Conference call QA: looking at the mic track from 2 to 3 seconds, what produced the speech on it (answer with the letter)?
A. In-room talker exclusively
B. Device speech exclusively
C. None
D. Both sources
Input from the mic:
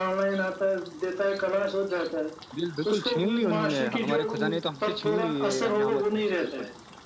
D